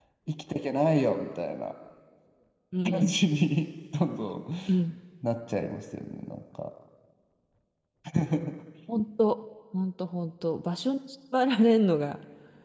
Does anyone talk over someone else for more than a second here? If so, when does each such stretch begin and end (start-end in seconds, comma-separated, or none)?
none